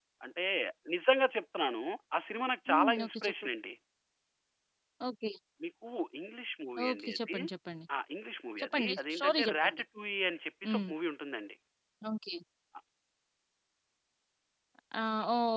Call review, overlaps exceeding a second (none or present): present